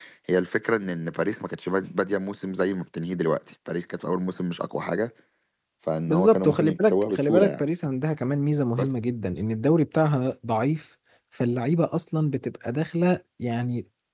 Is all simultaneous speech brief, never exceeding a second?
No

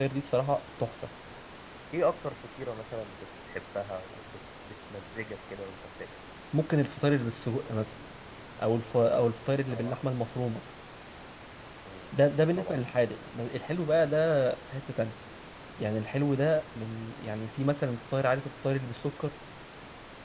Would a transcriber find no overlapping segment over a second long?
Yes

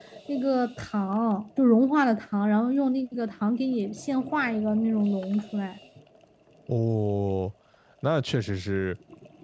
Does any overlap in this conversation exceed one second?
No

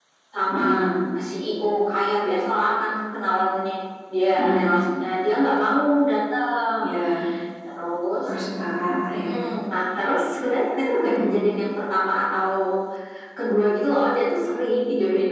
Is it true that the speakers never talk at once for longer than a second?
Yes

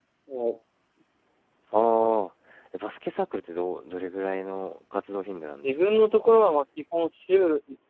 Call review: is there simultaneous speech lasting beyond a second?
No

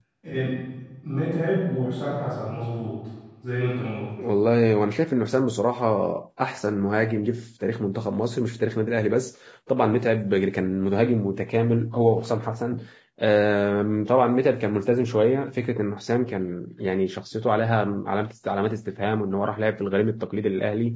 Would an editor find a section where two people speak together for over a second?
No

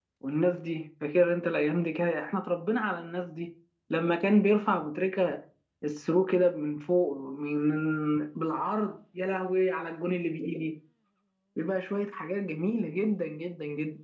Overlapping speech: No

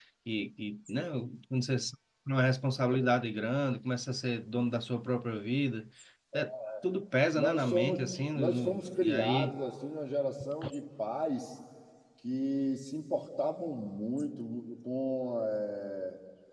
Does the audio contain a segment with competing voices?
Yes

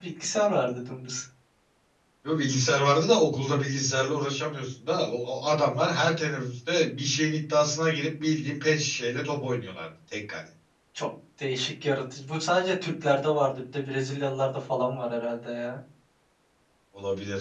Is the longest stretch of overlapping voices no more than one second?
Yes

